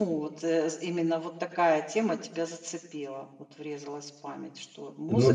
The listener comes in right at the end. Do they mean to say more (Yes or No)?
Yes